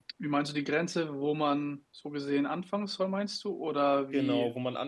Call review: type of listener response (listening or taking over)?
taking over